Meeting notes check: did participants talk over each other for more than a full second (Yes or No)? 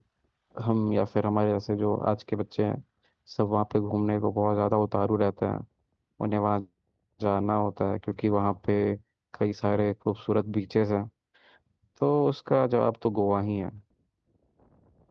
No